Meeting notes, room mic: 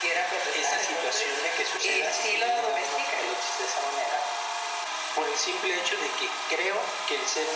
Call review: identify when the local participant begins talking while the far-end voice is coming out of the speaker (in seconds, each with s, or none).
none